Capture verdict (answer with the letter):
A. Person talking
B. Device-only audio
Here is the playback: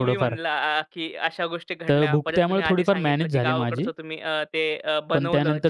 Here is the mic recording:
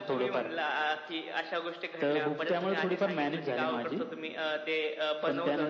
B